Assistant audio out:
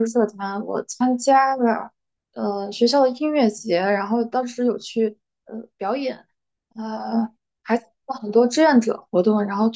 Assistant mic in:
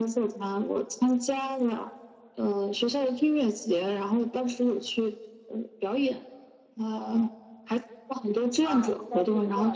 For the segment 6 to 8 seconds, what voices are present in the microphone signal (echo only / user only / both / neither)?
echo only